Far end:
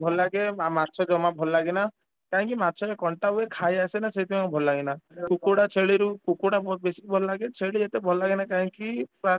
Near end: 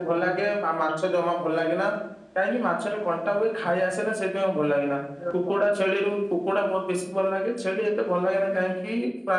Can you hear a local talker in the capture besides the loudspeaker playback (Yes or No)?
No